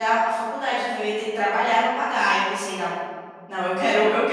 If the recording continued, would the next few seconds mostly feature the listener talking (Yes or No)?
Yes